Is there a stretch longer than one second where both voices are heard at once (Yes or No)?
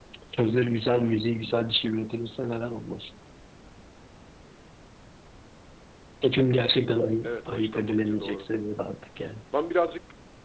Yes